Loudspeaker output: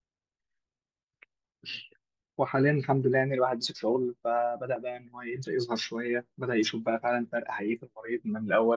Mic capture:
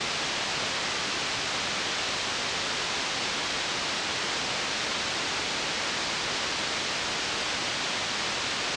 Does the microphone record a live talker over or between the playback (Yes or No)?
No